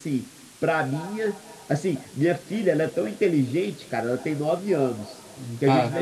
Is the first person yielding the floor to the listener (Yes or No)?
No